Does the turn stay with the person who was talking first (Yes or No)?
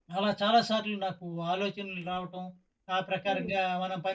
Yes